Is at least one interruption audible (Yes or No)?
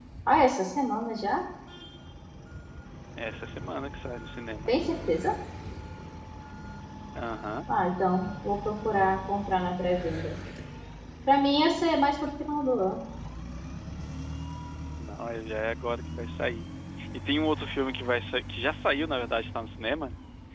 No